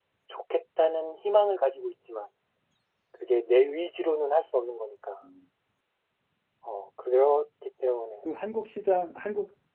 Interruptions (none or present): none